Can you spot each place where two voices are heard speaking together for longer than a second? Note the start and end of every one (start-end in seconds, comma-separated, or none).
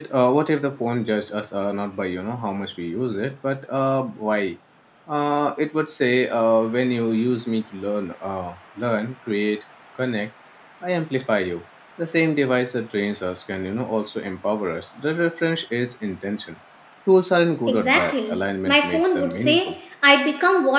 17.7-19.8